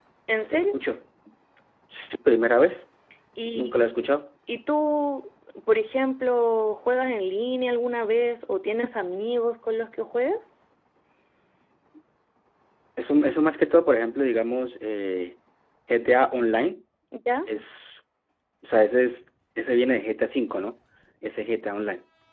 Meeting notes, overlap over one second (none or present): none